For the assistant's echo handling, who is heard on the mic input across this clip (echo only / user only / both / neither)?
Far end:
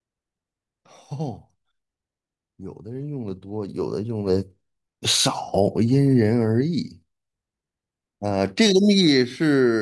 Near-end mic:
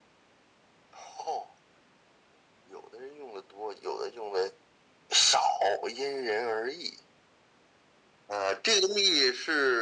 echo only